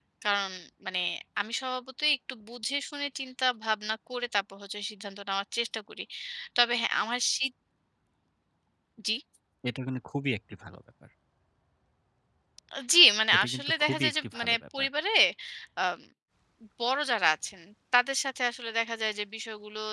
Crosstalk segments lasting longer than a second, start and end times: 13.3-14.9

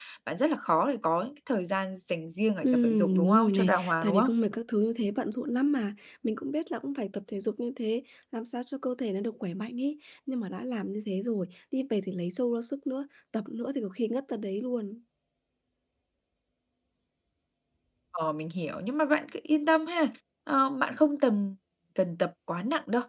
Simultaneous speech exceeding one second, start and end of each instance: 2.6-4.3

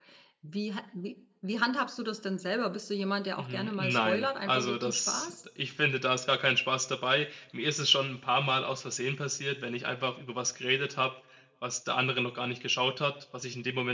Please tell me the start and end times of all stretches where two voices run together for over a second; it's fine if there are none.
3.4-5.3

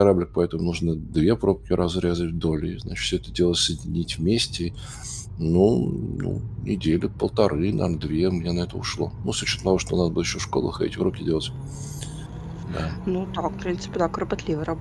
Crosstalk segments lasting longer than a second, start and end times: none

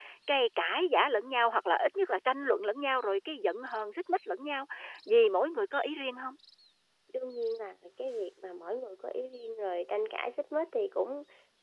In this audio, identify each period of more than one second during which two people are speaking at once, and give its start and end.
none

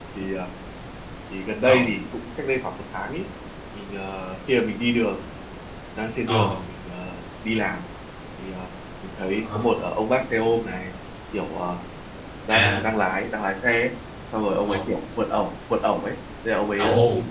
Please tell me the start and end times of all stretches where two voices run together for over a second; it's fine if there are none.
none

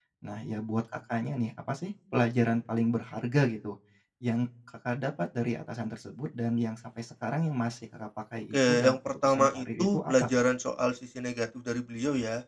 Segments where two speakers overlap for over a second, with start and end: 8.5-10.3

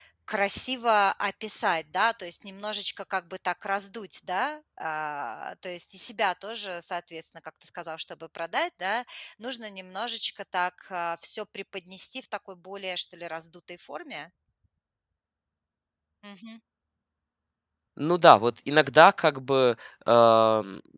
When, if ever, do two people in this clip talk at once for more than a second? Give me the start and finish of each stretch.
none

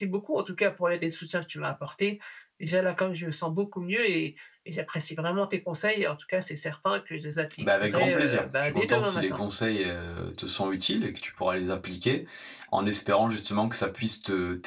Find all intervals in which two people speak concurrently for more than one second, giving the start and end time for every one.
7.6-9.4

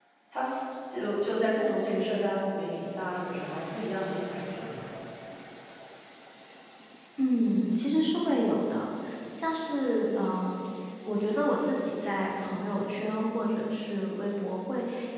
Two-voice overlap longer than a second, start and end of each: none

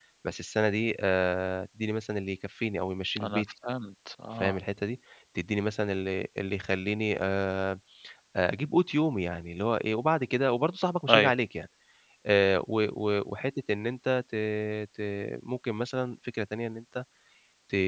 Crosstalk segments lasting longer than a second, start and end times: none

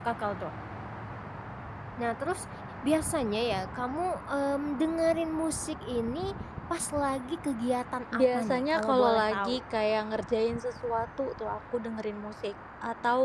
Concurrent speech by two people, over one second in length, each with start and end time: 8.1-9.6

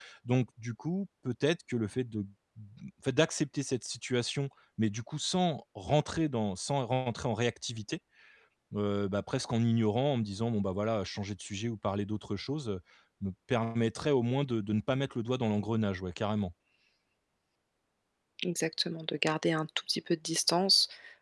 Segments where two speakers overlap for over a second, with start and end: none

